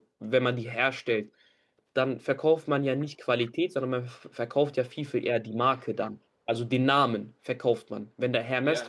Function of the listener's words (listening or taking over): taking over